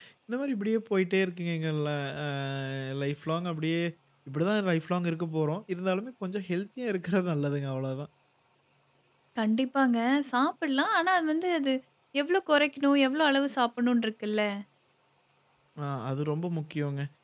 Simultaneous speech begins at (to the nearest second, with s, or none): none